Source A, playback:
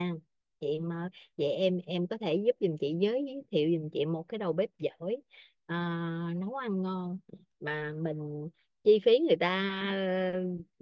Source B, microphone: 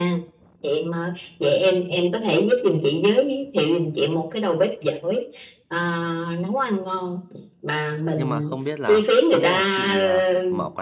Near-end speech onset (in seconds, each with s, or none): 8.1 s